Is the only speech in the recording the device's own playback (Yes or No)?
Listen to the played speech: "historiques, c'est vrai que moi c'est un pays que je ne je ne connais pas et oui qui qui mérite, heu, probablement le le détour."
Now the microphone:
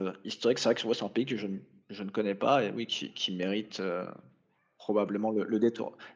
Yes